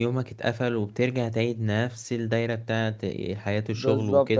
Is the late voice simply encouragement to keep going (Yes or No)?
No